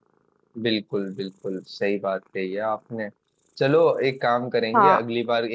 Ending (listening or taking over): listening